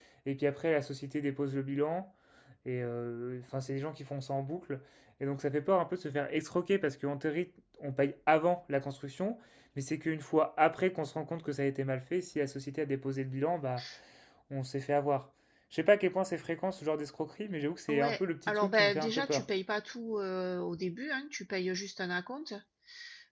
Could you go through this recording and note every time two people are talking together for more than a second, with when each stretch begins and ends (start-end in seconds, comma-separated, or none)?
17.9-19.4